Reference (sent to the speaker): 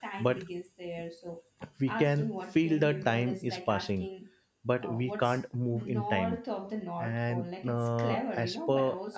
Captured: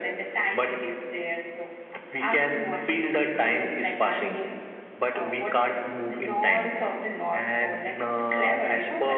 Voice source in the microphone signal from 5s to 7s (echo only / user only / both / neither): echo only